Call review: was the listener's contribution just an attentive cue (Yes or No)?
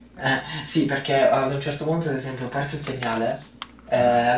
Yes